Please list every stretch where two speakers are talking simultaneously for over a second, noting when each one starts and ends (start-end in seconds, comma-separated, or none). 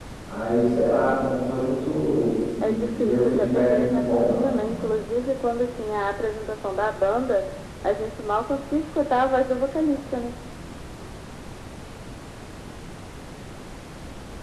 2.6-4.5